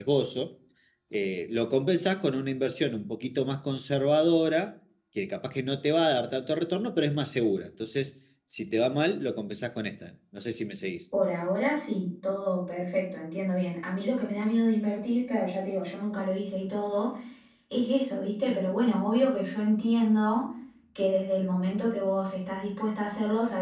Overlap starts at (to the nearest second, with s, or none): none